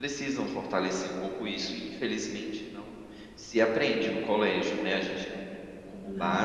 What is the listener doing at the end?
listening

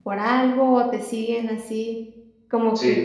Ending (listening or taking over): listening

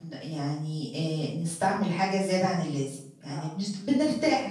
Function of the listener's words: listening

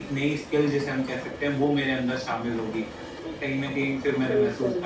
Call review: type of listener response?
listening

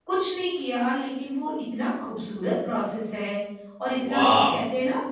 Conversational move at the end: listening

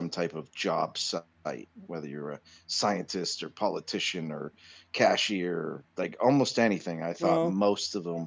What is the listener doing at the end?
listening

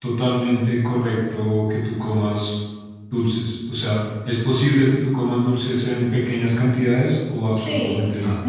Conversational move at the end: taking over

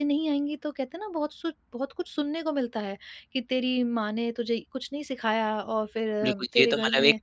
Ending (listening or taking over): taking over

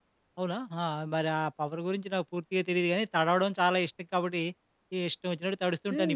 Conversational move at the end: taking over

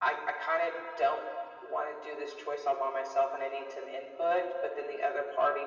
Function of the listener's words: listening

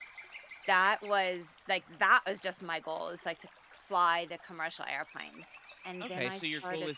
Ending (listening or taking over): taking over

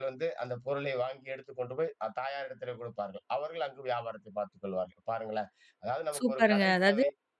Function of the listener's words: taking over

